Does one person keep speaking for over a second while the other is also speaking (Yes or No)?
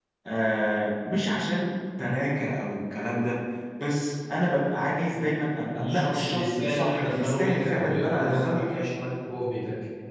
Yes